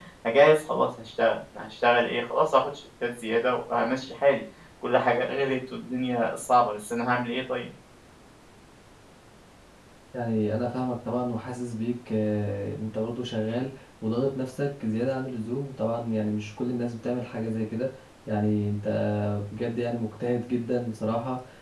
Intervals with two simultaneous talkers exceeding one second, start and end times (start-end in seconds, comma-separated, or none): none